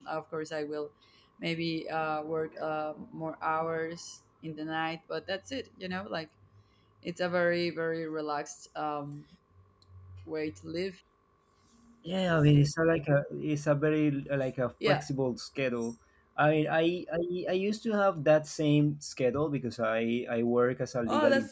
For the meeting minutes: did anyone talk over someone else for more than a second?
No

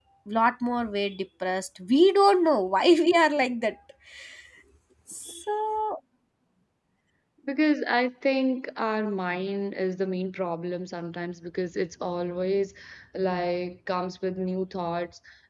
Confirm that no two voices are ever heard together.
Yes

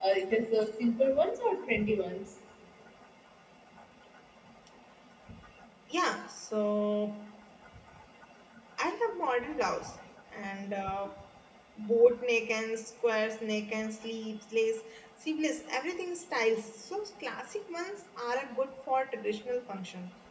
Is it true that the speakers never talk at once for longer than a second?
Yes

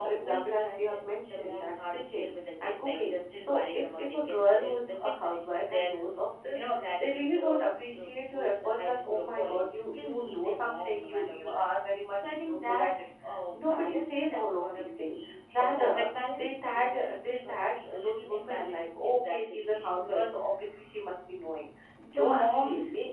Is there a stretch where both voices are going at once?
Yes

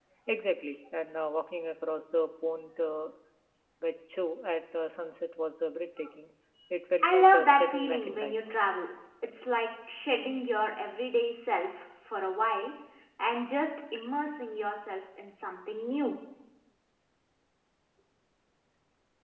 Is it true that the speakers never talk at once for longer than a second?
No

